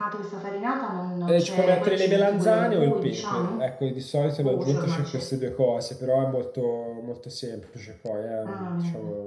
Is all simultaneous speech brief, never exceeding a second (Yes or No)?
No